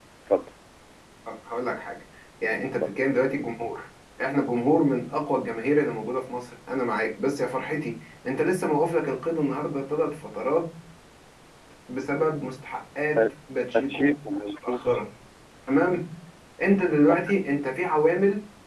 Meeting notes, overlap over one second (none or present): none